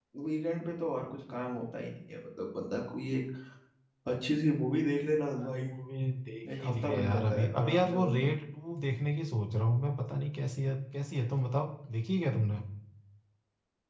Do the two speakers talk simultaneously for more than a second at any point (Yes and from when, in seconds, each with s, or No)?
Yes, from 6.6 s